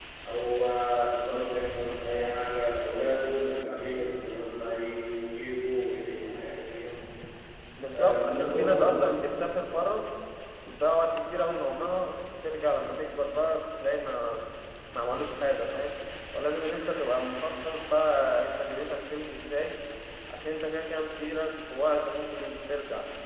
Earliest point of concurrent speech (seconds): 7.9 s

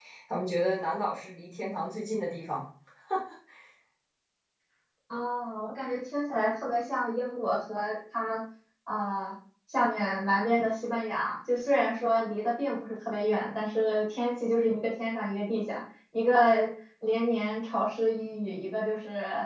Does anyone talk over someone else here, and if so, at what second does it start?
none

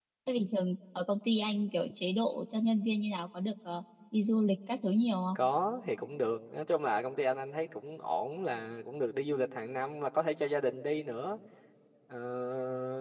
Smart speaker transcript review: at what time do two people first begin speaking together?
none

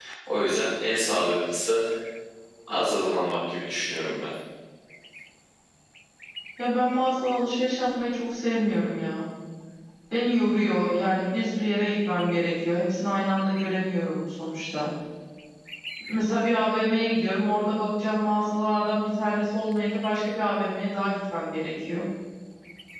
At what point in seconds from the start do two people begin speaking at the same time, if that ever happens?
none

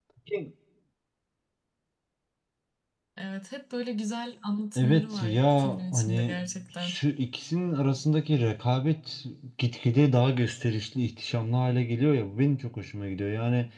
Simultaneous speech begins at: 4.8 s

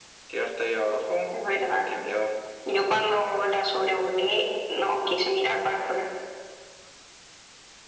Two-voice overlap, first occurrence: none

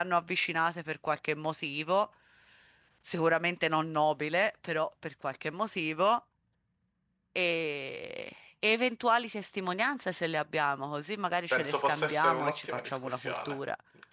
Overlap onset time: 11.5 s

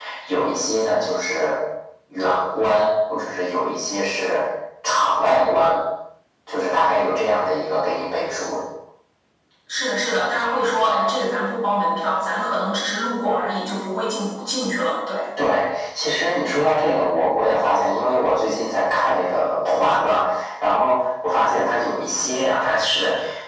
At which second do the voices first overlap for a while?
none

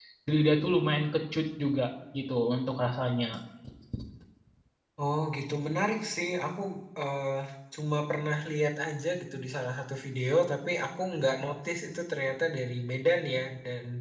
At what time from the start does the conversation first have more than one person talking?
none

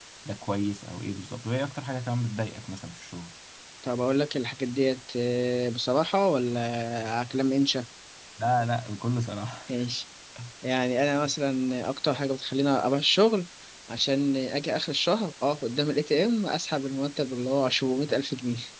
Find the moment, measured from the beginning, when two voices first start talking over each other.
none

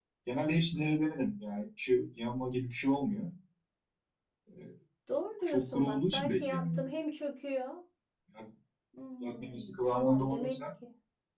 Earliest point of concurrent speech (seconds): 5.4 s

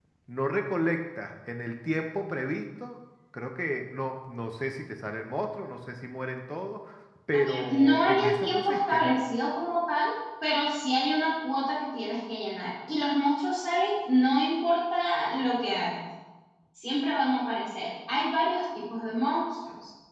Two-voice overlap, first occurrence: 7.3 s

